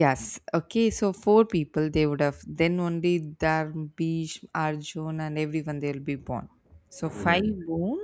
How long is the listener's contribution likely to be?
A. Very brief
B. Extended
A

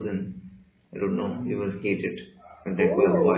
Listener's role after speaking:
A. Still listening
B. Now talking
B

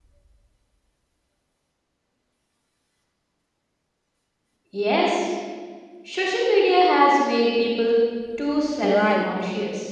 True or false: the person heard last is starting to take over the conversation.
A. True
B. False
A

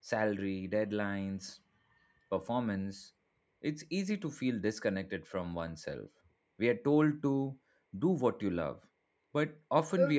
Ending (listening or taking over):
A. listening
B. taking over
A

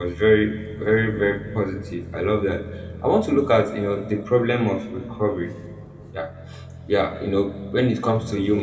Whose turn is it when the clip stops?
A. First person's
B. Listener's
A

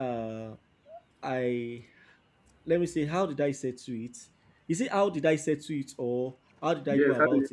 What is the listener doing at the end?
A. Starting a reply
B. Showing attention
A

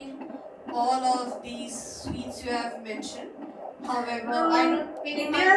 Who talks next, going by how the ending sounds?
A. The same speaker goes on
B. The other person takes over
B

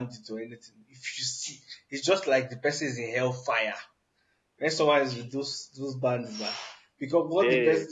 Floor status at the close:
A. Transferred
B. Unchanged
B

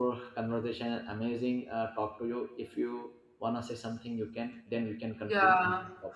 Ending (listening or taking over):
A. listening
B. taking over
B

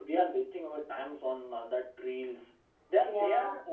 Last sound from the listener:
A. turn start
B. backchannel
B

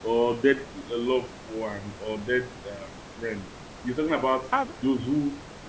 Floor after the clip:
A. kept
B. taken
A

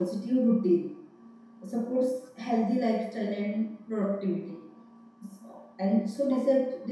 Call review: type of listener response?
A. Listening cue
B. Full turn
A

